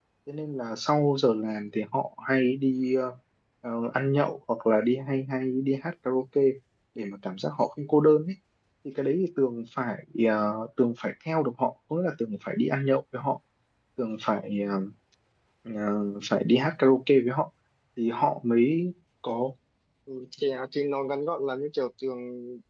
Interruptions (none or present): none